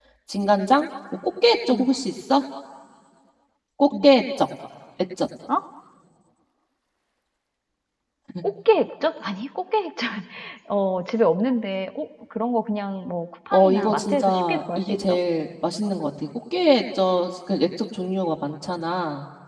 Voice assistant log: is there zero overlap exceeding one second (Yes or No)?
No